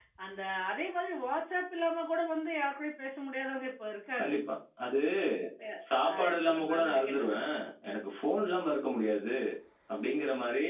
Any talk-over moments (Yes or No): Yes